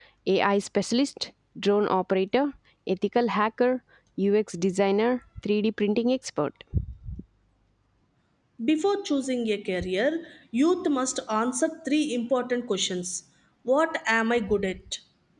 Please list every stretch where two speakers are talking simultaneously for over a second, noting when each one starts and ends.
none

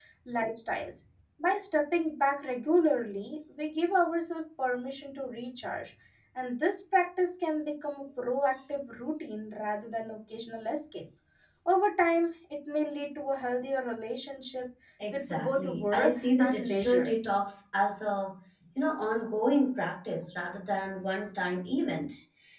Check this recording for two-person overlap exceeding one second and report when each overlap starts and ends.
15.1-17.1

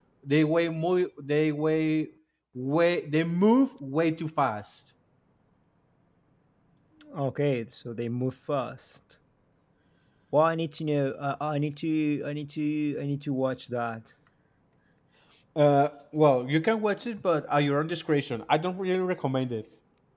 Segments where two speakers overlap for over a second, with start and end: none

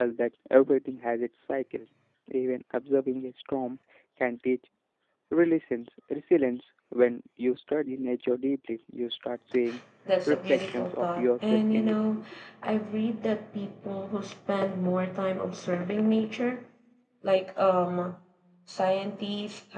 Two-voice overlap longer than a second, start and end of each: 10.3-11.9

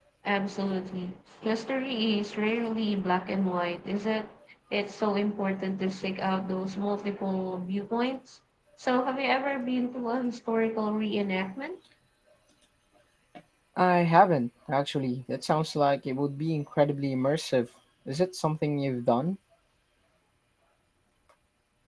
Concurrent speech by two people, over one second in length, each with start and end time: none

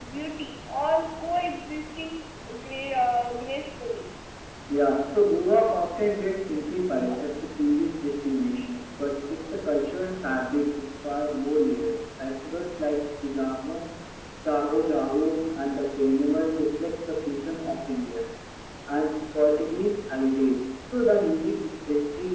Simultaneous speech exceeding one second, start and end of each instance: none

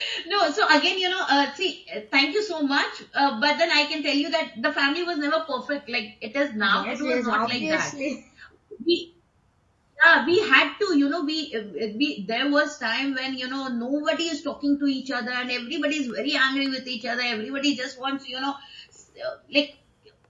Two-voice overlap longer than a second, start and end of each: 6.6-7.9

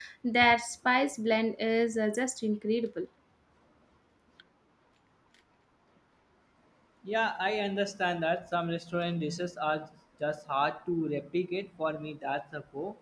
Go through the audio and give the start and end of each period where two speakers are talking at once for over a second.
none

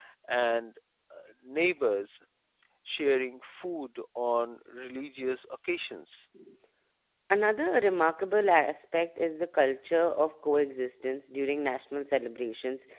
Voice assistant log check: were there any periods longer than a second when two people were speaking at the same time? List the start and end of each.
none

